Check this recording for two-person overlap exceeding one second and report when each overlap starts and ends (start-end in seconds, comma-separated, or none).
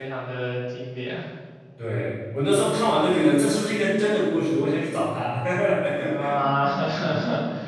none